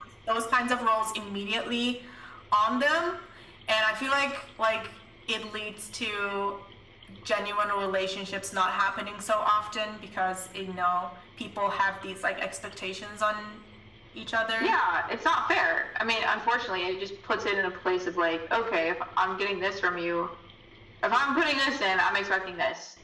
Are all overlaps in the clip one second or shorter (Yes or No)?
Yes